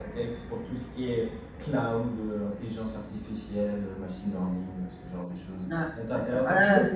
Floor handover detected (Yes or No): Yes